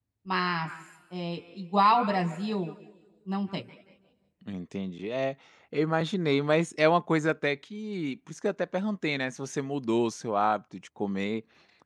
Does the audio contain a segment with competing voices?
No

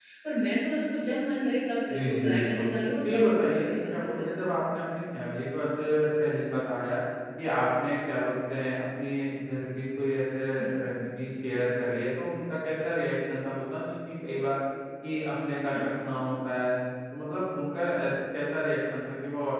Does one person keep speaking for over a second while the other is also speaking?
Yes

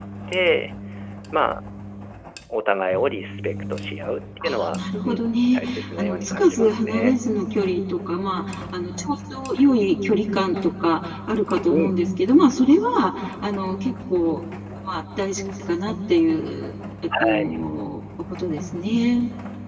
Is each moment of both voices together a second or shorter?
No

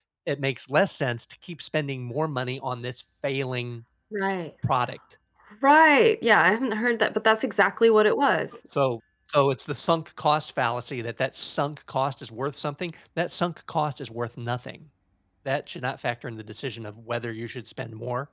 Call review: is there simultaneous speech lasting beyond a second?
No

